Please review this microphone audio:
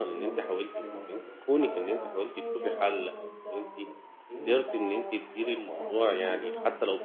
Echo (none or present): present